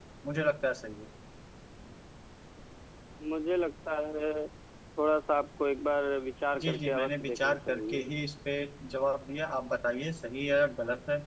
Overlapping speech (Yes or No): Yes